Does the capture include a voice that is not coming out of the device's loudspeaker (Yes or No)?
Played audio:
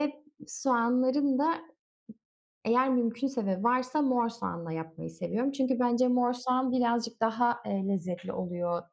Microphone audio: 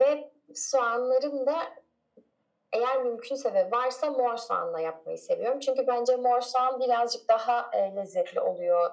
No